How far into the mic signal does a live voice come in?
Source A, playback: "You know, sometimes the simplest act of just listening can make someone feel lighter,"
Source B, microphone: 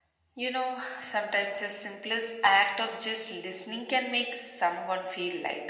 none

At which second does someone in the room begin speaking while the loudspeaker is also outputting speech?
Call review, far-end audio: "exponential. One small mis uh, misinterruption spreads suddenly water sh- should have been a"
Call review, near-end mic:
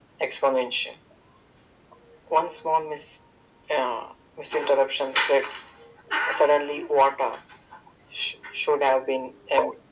none

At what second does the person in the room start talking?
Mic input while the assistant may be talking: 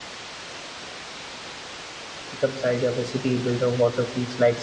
2.3 s

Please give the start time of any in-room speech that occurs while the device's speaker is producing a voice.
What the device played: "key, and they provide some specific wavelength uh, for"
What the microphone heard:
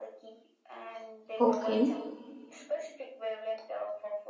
1.4 s

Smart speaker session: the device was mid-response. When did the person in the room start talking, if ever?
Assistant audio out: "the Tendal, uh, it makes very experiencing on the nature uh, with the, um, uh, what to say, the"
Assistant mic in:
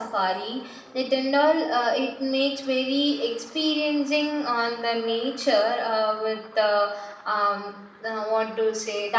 none

